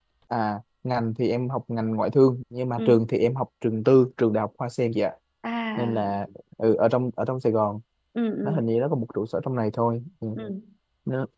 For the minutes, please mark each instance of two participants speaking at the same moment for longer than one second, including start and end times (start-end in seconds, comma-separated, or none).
none